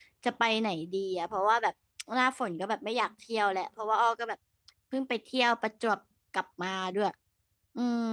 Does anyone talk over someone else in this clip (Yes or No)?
No